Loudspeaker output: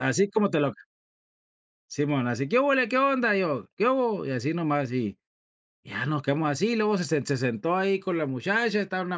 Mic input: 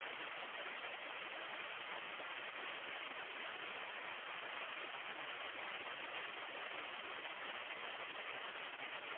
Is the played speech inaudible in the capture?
Yes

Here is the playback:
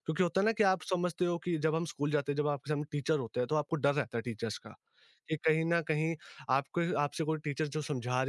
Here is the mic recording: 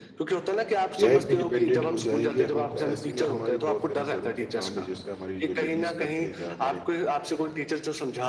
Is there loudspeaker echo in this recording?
Yes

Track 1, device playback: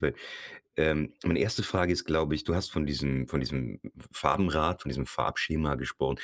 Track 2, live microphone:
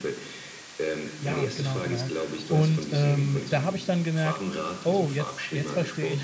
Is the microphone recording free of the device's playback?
No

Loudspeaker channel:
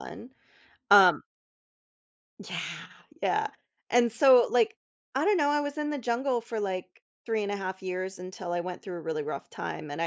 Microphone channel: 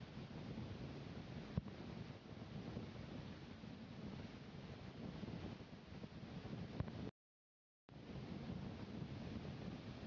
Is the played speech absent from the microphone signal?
Yes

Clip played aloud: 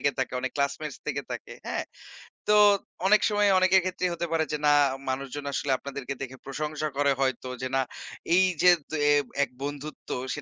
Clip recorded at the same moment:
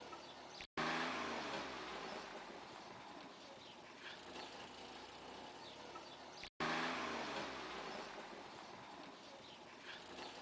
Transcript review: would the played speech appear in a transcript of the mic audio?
No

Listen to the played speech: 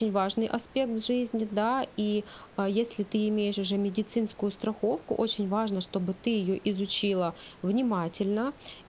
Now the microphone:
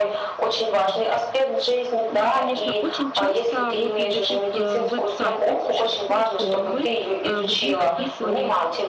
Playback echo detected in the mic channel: Yes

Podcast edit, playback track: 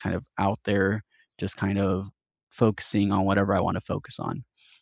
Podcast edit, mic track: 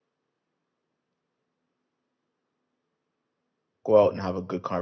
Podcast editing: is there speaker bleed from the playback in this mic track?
No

